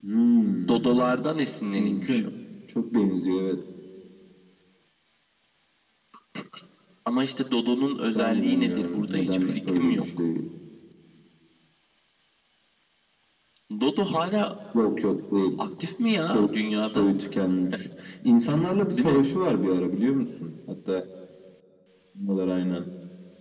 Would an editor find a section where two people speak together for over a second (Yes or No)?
Yes